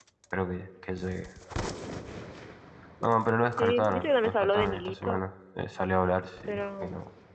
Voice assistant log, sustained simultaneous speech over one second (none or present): present